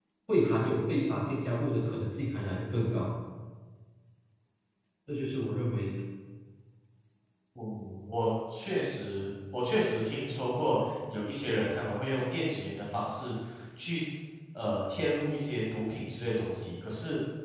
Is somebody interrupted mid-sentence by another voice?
No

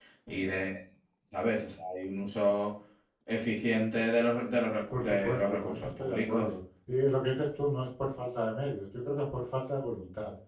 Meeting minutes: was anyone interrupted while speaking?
Yes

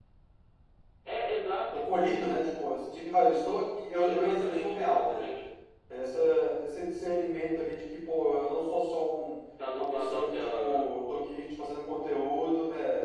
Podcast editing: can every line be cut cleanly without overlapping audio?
No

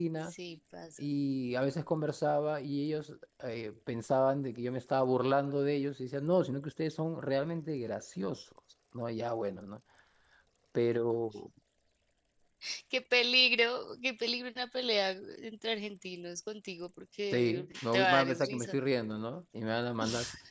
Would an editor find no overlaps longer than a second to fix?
No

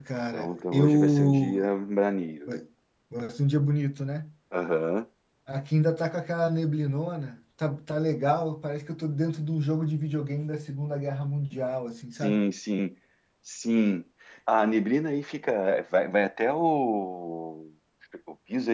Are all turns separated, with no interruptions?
No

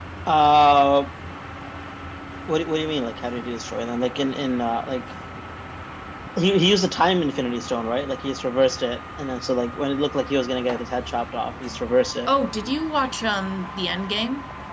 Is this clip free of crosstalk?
Yes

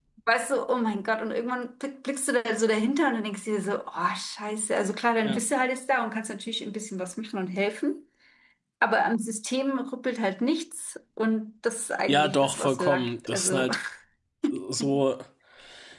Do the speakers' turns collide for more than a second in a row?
Yes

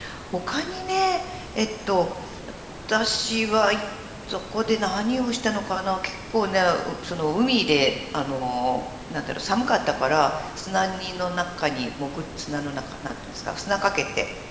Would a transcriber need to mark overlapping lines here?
No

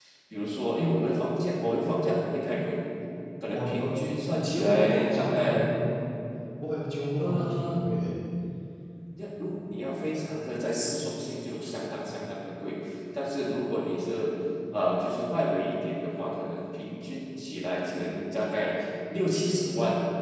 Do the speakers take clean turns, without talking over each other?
No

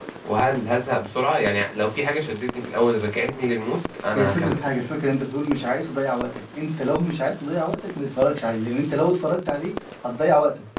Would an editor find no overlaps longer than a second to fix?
Yes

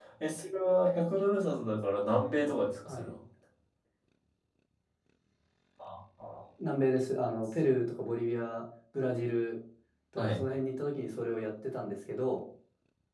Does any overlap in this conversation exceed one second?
No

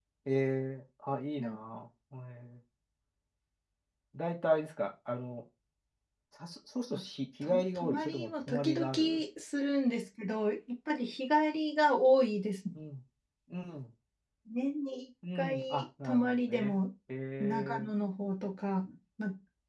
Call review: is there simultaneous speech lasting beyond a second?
Yes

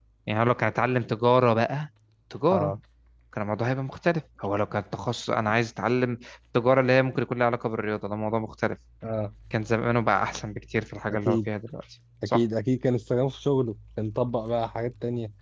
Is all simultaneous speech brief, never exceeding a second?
Yes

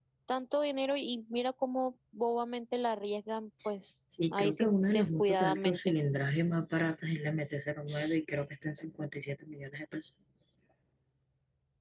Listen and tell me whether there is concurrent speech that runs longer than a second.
Yes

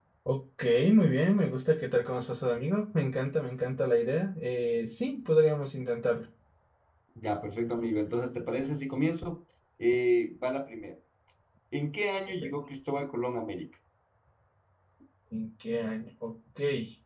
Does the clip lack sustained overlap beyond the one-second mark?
Yes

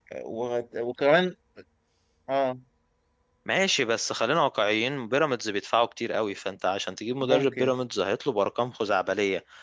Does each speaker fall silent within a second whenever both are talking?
Yes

